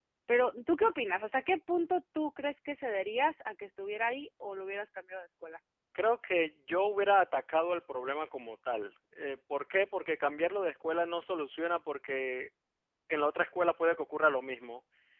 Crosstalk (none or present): none